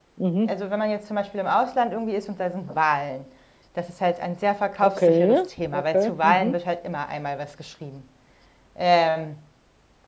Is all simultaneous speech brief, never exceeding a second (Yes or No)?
No